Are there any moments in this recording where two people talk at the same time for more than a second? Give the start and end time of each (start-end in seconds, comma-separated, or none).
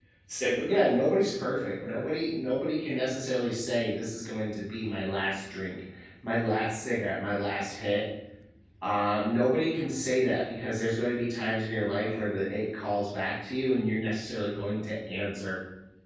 0.6-2.0